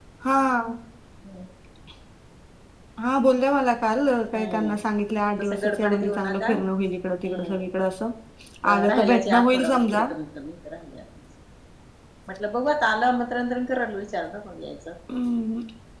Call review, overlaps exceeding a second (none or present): present